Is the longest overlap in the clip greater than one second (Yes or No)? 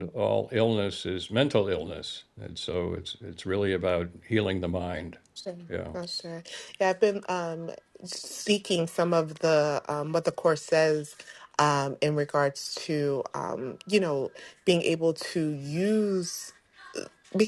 No